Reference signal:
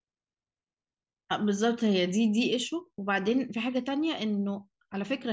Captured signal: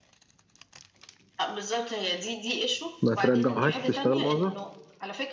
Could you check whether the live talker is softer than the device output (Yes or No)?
No